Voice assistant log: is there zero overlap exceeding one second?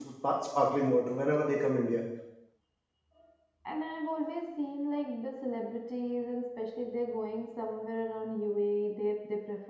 Yes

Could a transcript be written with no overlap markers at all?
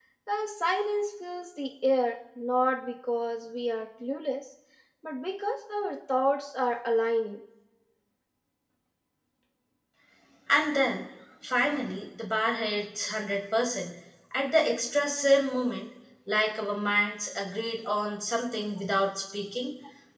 Yes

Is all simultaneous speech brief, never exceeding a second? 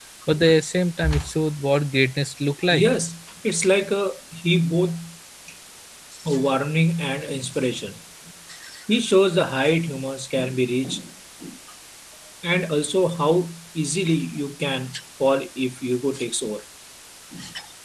Yes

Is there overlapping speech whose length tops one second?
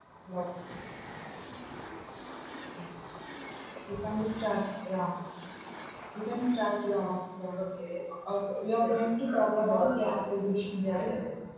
Yes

